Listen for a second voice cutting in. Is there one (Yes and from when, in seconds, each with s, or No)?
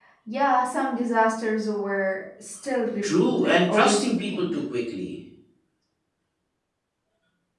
Yes, from 3.0 s